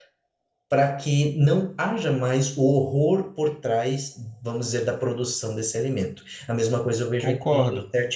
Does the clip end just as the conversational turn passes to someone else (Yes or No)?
No